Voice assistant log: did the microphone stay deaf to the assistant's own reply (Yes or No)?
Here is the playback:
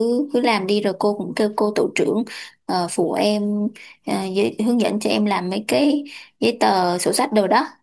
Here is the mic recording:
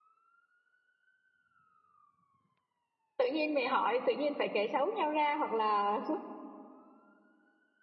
Yes